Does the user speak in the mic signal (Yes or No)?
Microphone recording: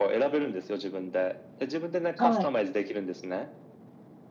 Yes